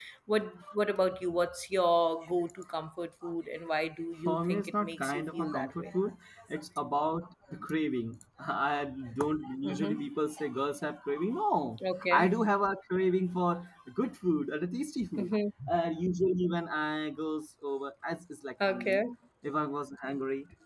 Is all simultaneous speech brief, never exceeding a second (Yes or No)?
No